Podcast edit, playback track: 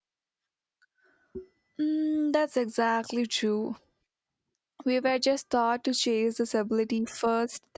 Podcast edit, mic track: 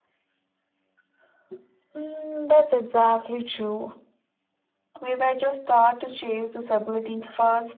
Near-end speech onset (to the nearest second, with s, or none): none